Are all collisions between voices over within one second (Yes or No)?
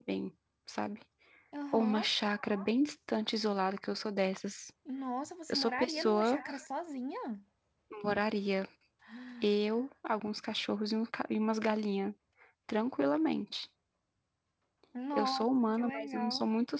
No